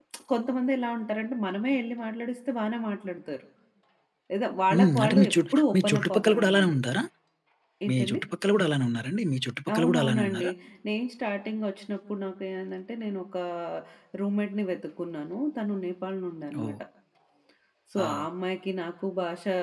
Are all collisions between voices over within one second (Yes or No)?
No